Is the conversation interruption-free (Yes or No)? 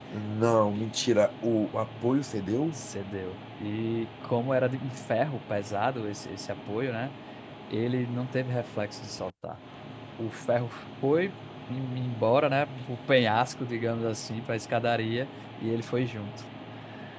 Yes